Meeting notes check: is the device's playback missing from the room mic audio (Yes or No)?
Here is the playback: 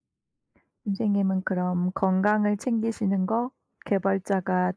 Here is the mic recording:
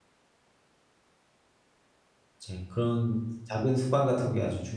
Yes